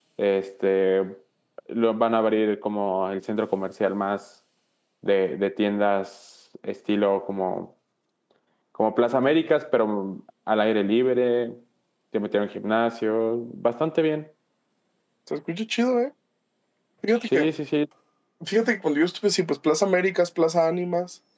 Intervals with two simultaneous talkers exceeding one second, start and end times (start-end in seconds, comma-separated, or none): none